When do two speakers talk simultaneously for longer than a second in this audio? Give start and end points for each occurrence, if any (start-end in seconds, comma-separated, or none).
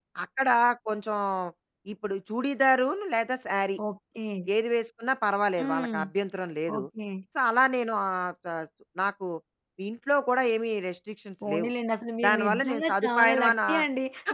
12.3-13.8